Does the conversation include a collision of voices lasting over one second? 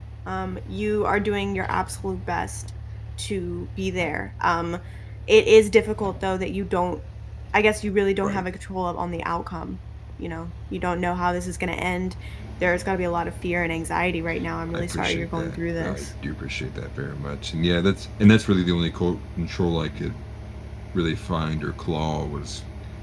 Yes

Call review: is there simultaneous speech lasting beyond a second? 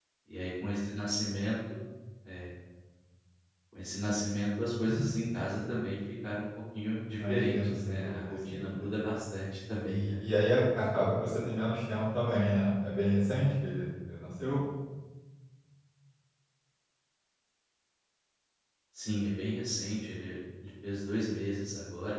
Yes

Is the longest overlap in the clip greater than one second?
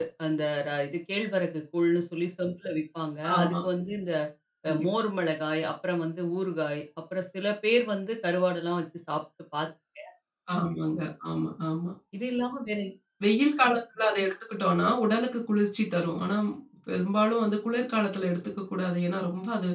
No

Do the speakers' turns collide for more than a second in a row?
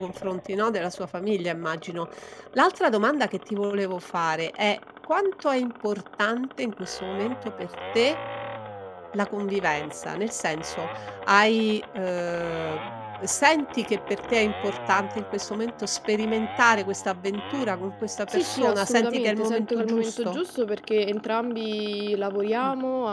Yes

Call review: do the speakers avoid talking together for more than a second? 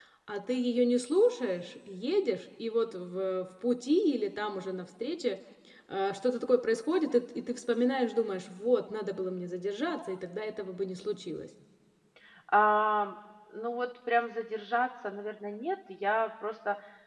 Yes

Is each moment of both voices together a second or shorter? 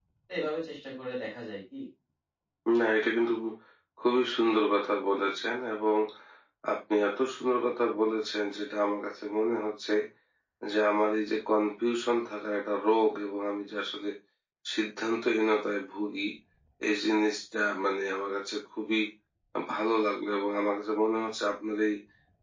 Yes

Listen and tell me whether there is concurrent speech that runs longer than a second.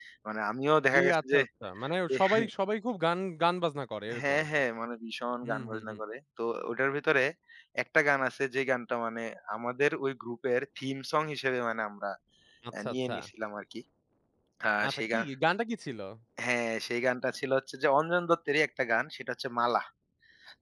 No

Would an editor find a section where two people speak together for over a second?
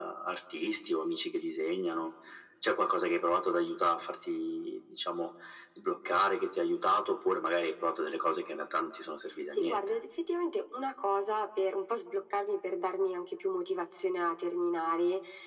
No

